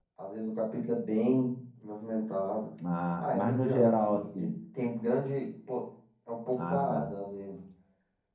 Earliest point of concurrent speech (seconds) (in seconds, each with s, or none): 3.2 s